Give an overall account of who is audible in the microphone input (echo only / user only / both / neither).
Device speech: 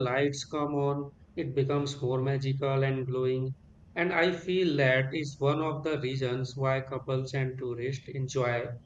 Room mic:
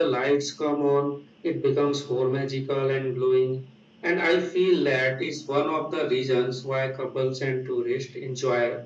echo only